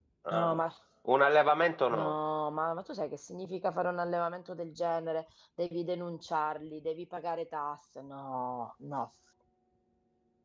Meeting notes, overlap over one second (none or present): none